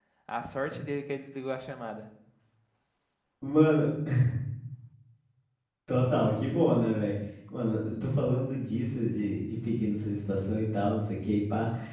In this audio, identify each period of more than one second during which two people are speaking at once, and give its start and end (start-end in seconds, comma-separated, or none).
none